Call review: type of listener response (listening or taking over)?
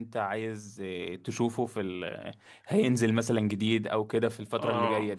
taking over